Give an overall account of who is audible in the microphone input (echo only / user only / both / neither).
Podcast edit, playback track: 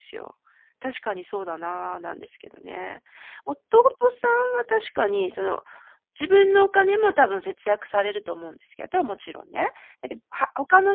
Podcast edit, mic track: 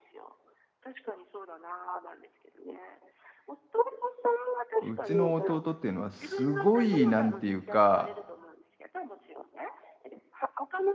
both